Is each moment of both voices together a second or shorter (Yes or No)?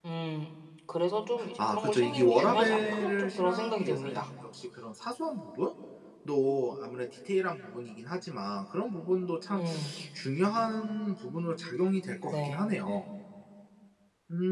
No